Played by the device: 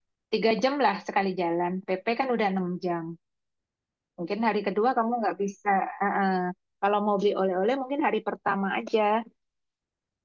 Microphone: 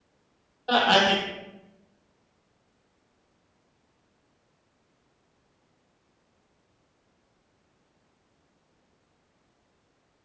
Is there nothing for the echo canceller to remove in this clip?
Yes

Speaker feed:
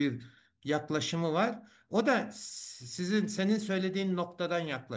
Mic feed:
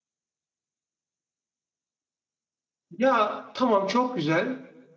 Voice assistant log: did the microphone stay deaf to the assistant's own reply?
Yes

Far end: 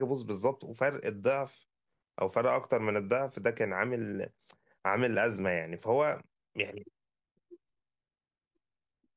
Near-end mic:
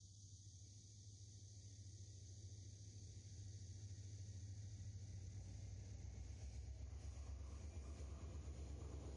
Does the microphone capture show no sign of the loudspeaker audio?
Yes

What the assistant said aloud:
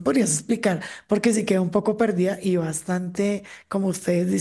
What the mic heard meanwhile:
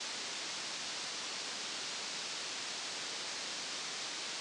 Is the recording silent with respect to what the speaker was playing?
Yes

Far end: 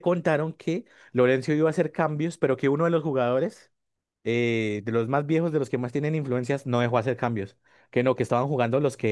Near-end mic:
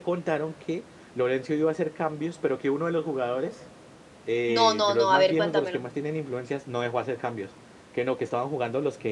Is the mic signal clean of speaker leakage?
No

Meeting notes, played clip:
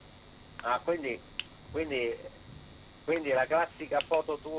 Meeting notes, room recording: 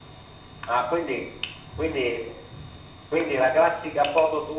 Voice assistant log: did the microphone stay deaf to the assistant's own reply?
No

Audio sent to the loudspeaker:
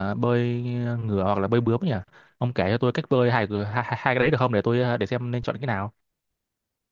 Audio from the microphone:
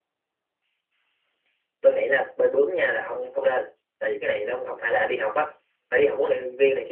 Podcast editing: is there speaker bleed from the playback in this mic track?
No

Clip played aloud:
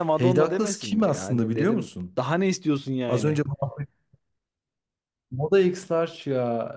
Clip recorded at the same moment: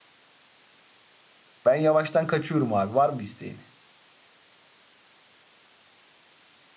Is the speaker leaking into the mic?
No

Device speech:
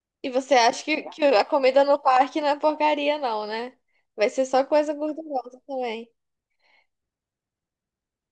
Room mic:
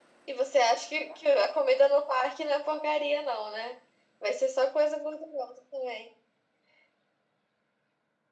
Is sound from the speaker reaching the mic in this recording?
Yes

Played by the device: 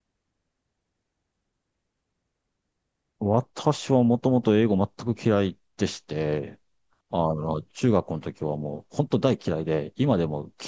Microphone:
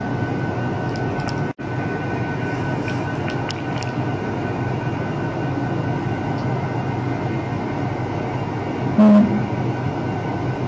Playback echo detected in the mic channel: No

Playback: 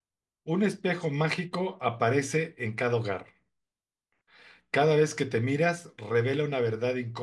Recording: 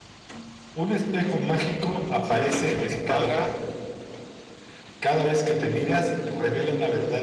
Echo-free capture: No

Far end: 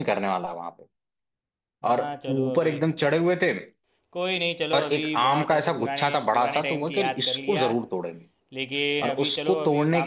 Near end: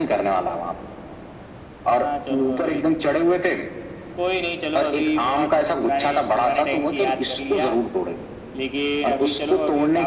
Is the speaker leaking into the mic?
Yes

